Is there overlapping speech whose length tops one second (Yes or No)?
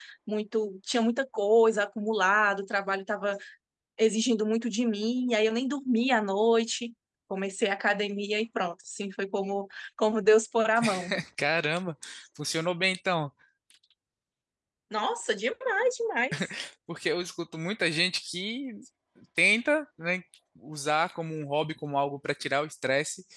No